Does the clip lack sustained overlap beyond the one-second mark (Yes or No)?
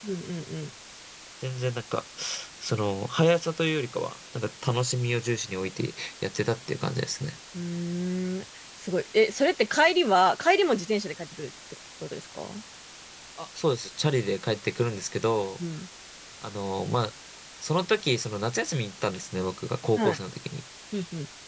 Yes